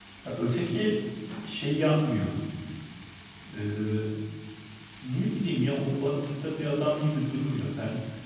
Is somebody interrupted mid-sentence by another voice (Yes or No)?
No